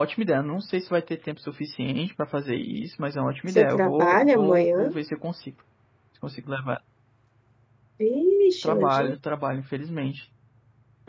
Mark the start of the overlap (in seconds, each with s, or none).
3.6 s